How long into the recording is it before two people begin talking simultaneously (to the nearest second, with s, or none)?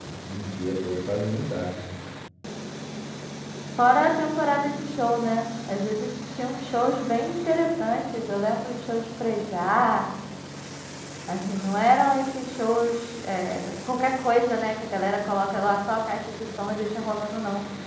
none